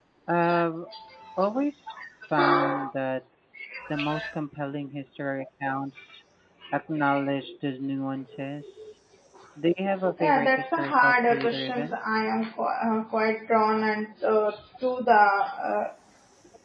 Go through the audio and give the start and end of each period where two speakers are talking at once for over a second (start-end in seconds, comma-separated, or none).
10.2-12.0